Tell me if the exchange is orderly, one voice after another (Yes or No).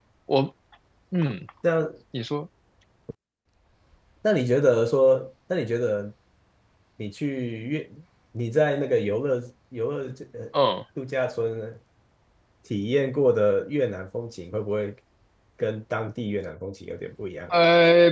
Yes